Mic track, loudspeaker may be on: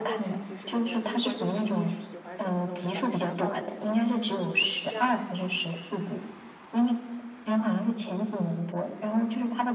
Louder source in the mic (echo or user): echo